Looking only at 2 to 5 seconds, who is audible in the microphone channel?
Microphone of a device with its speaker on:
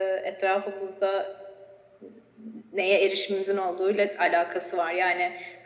echo only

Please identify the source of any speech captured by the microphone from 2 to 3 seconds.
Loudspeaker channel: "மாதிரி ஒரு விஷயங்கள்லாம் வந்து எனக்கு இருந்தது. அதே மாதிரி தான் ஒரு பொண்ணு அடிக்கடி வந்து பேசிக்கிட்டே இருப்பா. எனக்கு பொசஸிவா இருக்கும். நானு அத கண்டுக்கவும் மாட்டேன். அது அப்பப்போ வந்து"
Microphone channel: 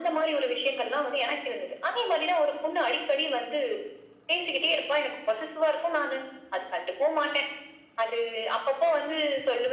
echo only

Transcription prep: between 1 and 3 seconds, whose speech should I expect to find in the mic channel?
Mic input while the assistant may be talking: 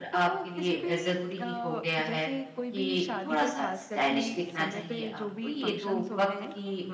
both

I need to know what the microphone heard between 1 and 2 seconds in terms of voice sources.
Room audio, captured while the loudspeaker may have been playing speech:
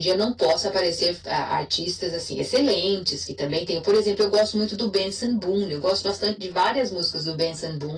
echo only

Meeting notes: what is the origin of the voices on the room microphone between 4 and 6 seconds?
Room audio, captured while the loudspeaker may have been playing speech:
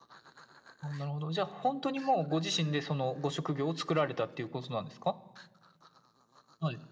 echo only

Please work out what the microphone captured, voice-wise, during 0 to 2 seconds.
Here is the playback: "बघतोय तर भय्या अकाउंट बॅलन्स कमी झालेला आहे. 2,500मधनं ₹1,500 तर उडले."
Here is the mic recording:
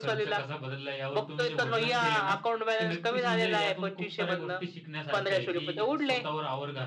both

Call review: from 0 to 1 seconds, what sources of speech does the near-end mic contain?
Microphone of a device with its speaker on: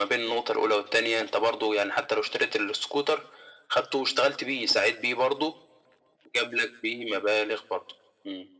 echo only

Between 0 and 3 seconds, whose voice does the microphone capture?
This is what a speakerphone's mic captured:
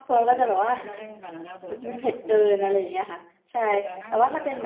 both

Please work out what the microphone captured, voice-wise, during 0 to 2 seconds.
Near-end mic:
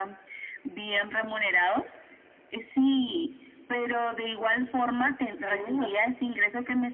echo only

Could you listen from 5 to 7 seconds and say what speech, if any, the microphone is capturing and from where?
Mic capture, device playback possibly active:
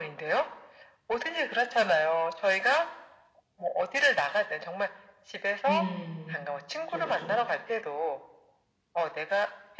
both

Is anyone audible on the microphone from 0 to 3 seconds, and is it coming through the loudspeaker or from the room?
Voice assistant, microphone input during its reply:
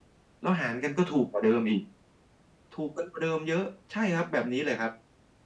echo only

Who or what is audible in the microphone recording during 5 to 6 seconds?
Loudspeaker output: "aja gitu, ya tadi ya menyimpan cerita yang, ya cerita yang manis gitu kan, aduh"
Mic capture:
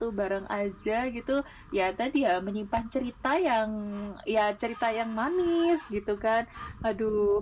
echo only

